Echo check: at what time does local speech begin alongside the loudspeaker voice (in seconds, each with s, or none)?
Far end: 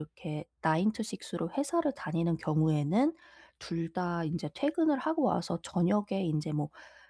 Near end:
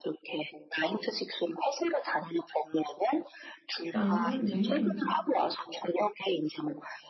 3.9 s